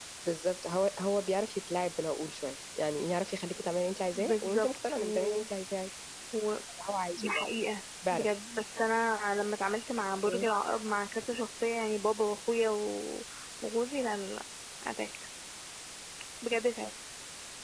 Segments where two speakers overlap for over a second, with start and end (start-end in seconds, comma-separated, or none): 4.2-5.4